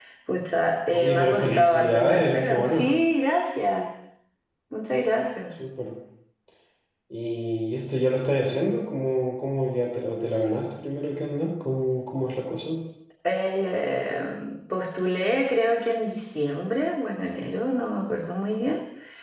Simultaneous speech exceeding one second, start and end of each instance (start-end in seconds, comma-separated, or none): 0.9-2.9